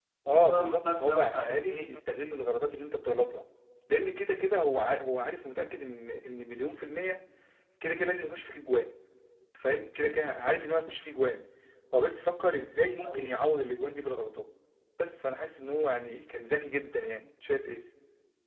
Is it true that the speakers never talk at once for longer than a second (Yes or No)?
No